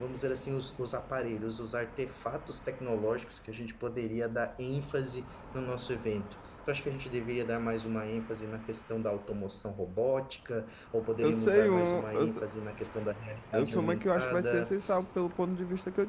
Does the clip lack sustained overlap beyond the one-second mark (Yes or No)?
No